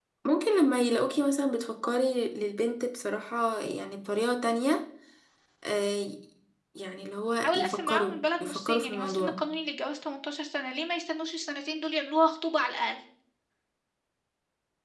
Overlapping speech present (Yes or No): Yes